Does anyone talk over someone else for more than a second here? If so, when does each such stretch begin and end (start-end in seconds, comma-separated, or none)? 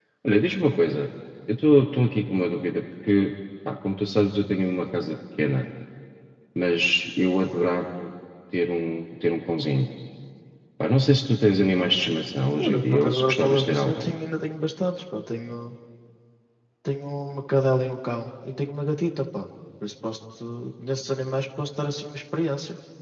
12.7-14.1